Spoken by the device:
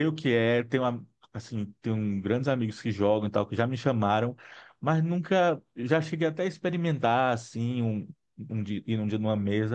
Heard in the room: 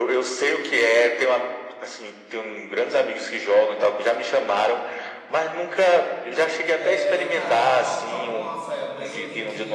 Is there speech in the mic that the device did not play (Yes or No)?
Yes